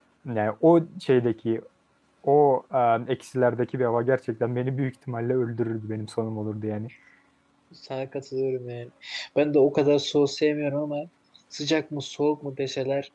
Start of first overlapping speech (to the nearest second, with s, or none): none